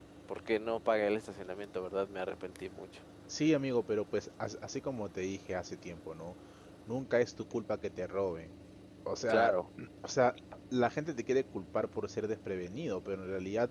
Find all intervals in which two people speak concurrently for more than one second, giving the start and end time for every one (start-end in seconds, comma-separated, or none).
none